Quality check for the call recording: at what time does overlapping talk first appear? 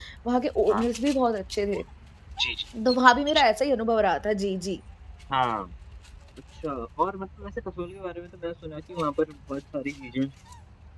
none

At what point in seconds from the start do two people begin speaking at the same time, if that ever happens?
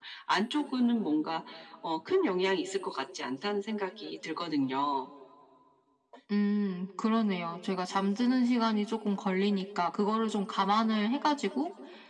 none

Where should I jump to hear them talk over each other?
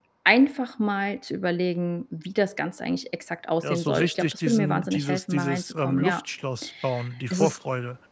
3.6 s

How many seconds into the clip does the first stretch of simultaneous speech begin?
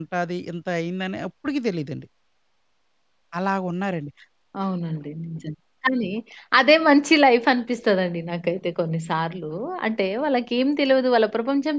none

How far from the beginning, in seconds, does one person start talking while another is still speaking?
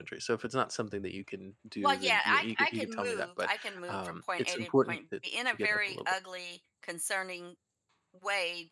1.8 s

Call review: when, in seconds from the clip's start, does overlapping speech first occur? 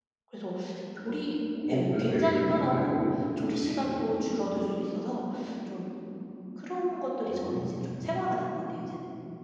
1.7 s

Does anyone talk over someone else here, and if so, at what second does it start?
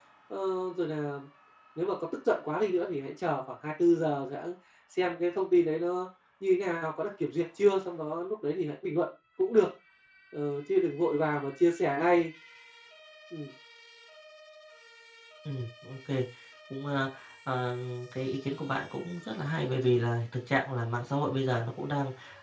none

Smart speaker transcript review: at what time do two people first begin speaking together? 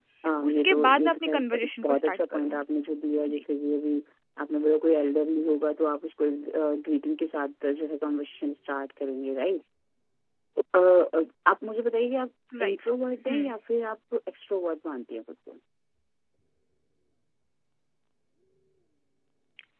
0.5 s

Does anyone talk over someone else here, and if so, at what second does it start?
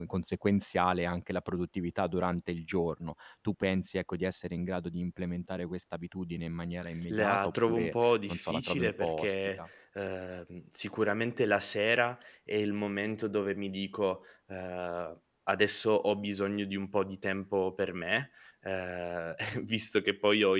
7.1 s

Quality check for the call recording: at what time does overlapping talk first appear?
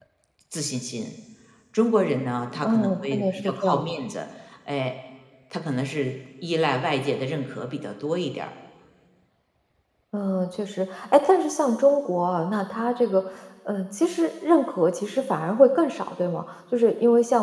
2.6 s

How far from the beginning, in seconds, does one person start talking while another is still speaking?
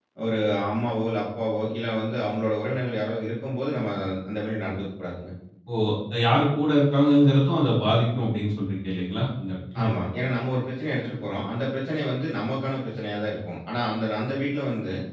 none

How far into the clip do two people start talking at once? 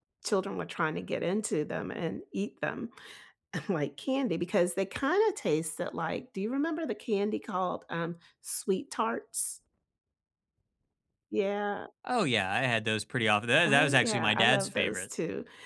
13.6 s

